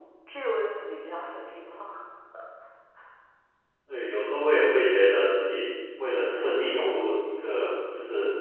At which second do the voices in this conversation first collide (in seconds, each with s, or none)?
none